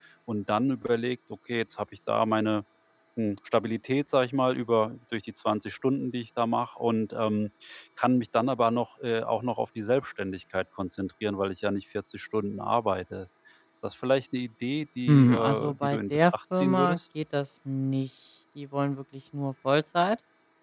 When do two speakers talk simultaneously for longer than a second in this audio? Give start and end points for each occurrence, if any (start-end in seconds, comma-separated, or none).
15.1-17.0